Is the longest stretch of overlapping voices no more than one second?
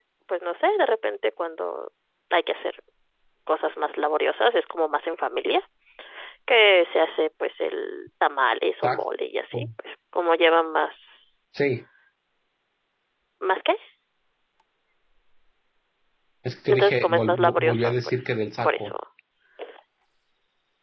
No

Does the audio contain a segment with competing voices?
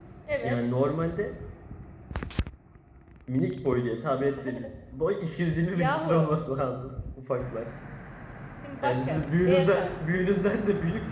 Yes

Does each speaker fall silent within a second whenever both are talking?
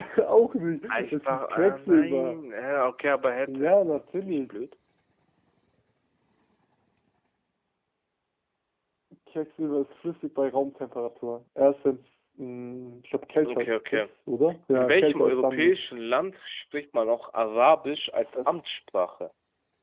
No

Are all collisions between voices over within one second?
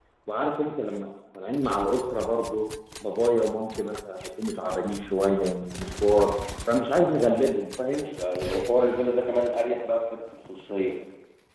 Yes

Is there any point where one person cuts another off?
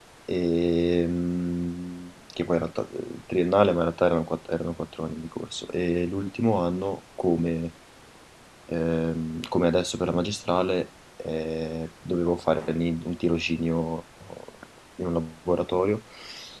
No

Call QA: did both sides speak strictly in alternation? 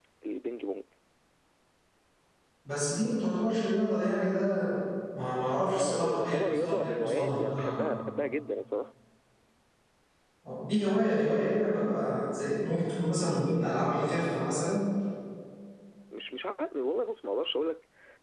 No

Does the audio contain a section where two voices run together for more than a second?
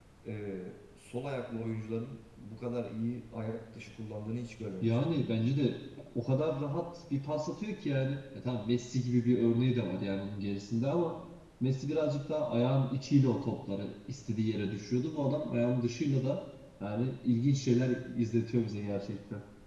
No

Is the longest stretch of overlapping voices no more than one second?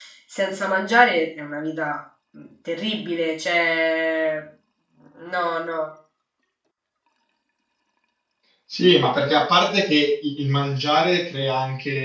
Yes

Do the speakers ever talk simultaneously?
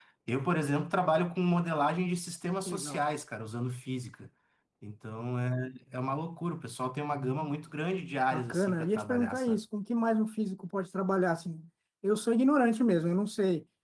Yes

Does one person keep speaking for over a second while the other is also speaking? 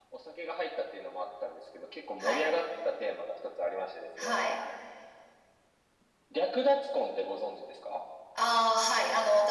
No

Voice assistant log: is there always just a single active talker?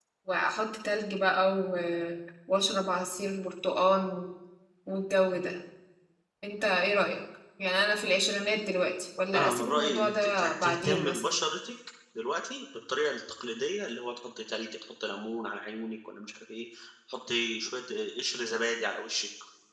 No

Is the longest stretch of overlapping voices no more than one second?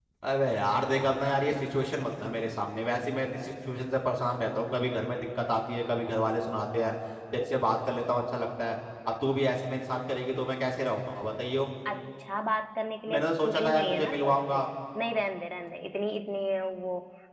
No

